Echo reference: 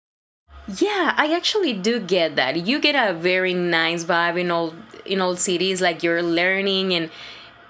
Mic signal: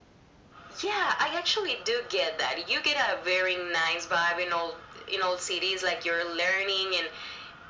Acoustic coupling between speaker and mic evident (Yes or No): Yes